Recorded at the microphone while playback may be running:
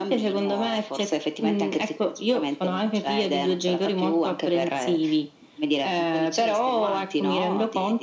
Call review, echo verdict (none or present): present